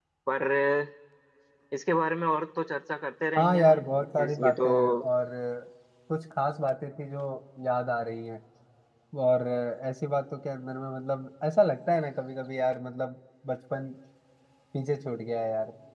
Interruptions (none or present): present